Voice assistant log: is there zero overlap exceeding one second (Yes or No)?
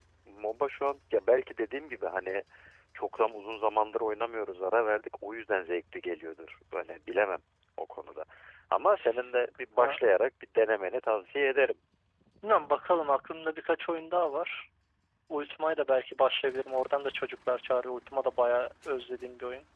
Yes